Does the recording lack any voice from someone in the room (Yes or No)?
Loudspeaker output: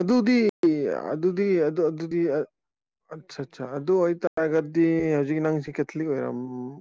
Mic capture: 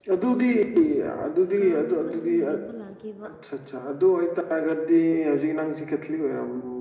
No